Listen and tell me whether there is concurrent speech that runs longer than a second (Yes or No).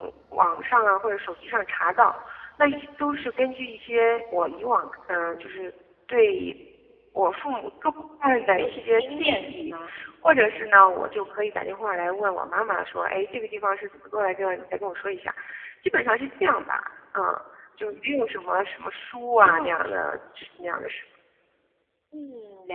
Yes